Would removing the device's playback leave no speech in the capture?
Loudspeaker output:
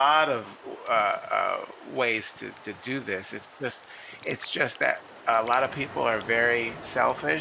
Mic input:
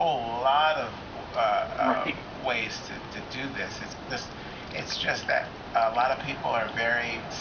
No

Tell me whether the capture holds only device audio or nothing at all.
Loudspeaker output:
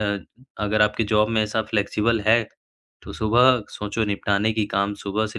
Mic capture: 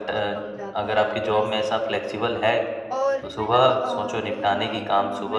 No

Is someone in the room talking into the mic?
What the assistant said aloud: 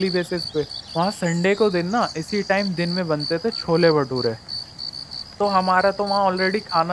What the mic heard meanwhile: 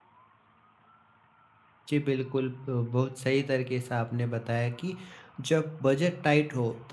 Yes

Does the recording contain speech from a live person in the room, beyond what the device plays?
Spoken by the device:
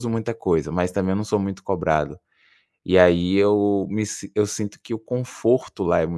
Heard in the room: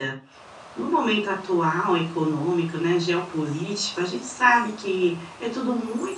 Yes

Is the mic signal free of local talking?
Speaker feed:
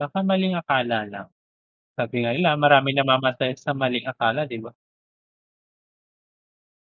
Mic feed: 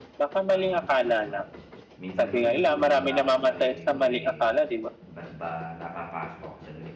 No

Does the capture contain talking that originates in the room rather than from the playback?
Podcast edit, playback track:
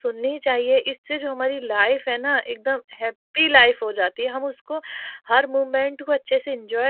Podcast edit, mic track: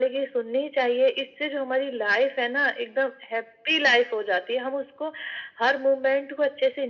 No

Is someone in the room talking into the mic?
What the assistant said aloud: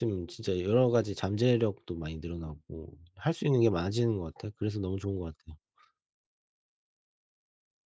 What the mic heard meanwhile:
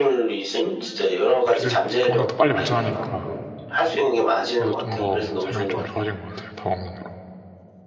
Yes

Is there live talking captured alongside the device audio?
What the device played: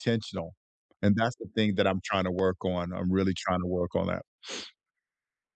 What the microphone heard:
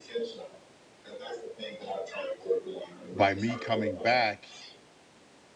Yes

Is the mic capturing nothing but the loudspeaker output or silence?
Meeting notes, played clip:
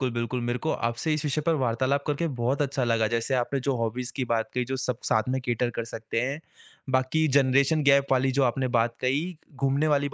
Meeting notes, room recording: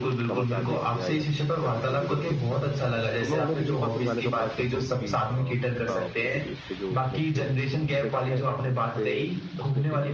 No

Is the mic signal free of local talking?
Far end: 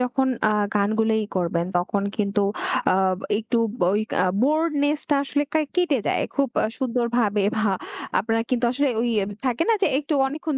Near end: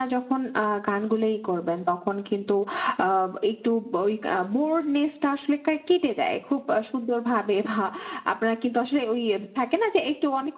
Yes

